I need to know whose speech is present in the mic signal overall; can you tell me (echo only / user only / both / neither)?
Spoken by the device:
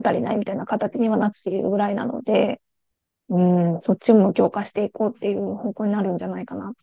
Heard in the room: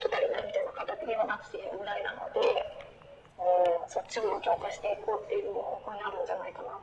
echo only